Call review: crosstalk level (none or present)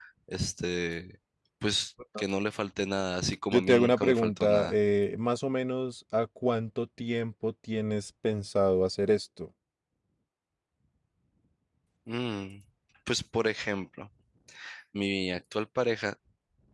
present